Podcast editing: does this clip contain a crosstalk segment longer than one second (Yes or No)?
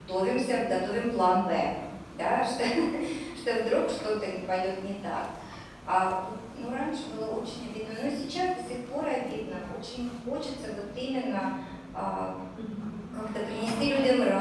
No